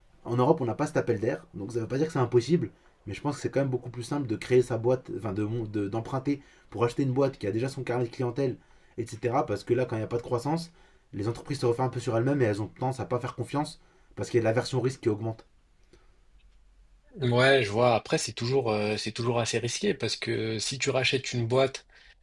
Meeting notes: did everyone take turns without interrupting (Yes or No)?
Yes